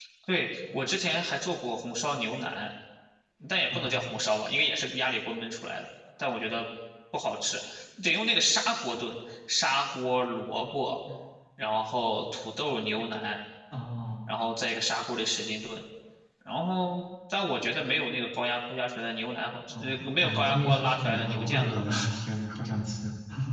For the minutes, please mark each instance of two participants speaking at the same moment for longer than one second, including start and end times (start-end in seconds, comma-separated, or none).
19.8-22.1